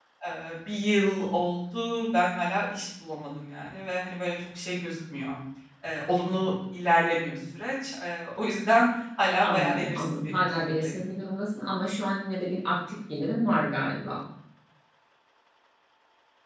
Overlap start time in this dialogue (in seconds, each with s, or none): 9.4 s